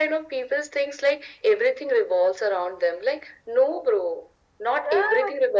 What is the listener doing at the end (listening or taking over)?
listening